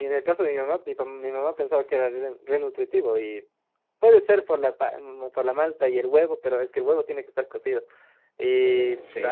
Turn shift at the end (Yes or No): No